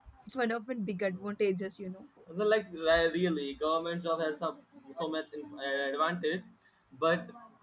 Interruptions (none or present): none